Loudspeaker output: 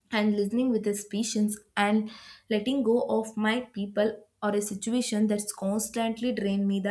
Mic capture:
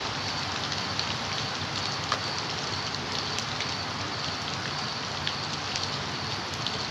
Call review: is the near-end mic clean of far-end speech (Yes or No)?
Yes